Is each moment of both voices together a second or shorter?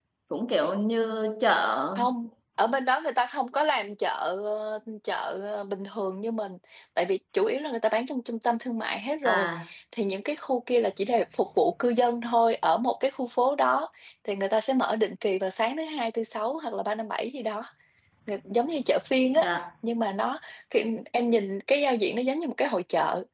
Yes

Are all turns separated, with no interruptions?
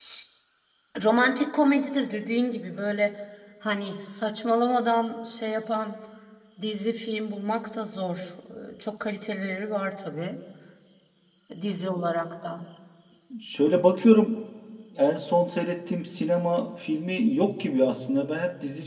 Yes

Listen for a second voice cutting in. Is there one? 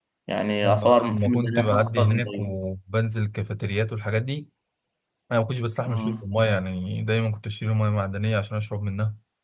Yes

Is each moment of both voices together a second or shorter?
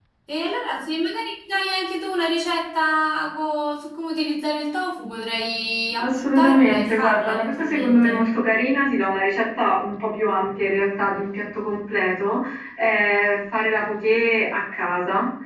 No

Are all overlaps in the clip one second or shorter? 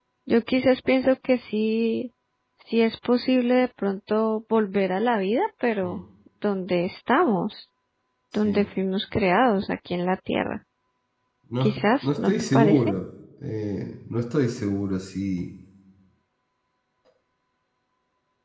No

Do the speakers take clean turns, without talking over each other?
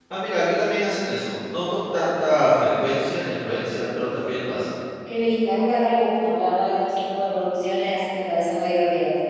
Yes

